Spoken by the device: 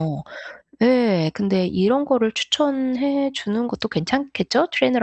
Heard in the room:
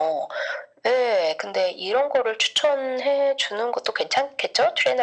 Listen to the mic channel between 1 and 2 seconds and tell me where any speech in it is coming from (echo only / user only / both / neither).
echo only